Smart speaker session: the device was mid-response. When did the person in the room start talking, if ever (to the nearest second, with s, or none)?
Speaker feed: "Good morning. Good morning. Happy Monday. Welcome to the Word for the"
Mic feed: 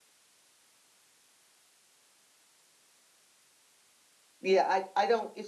4 s